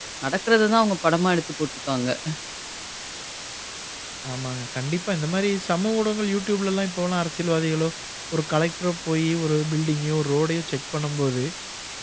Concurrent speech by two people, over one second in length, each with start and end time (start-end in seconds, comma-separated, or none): none